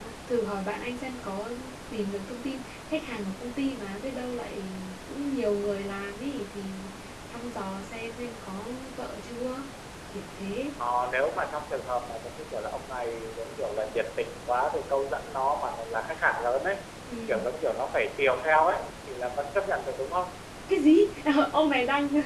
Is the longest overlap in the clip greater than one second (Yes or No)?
No